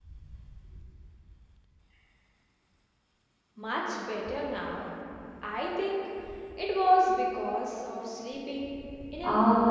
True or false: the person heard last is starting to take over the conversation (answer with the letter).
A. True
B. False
A